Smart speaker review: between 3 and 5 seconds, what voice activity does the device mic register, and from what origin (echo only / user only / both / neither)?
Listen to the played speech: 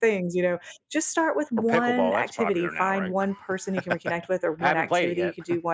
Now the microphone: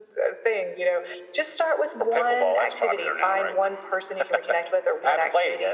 echo only